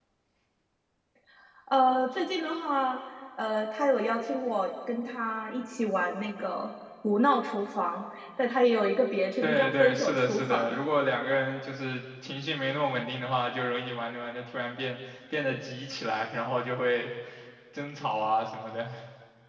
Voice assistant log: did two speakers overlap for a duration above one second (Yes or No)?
Yes